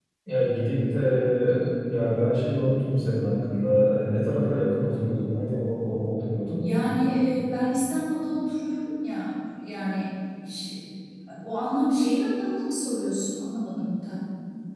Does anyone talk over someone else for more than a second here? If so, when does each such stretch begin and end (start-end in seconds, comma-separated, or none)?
none